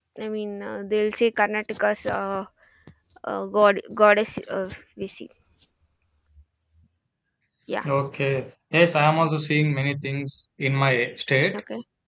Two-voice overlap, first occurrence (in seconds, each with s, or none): none